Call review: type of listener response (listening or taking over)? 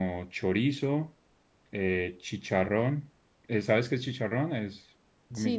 taking over